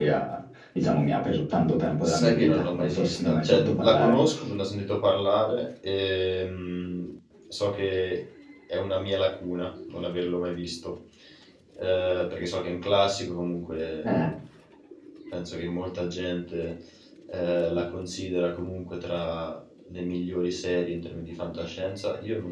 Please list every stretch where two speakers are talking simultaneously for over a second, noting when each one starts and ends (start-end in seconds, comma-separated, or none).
2.0-4.1